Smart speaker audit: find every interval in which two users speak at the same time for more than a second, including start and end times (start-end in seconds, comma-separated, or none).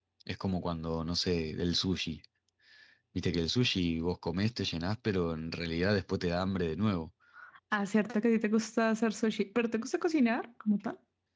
none